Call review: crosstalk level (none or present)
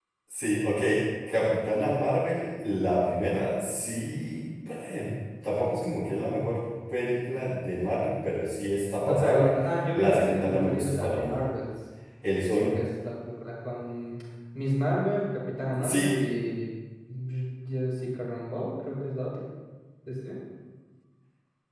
present